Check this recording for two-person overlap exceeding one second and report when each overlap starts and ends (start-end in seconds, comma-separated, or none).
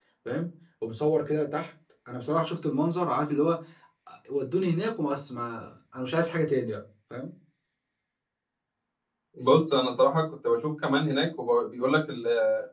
none